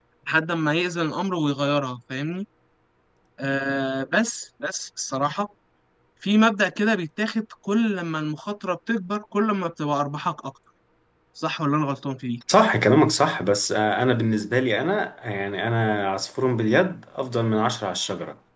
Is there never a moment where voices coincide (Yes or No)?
Yes